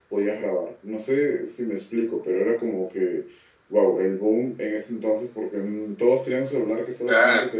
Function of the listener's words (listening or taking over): listening